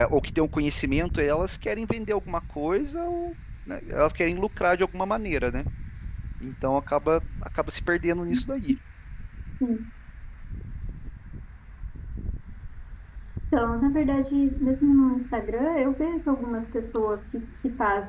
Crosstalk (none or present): none